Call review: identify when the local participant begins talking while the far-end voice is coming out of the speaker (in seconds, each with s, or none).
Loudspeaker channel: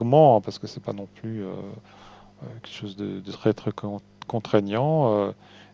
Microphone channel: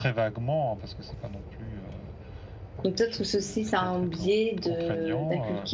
2.8 s